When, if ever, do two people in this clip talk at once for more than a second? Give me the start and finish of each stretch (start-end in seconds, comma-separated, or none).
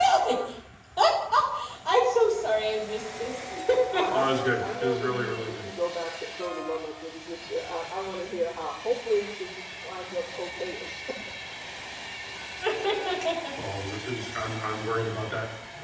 4.1-5.7